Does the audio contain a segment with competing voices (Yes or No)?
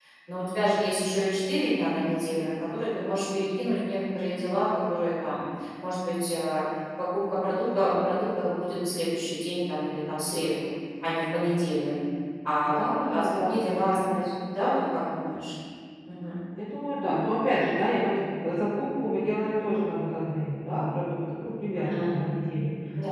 Yes